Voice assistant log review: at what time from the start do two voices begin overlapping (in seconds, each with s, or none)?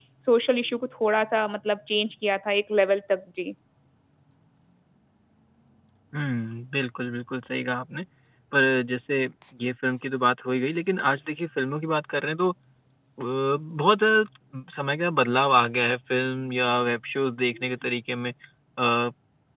none